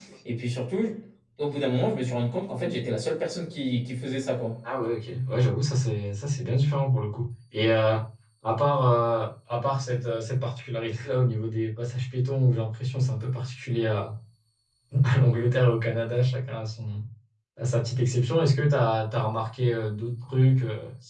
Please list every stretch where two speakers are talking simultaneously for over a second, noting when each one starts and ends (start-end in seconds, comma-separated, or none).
none